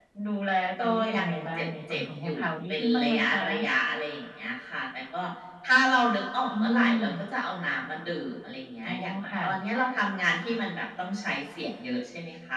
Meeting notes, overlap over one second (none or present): present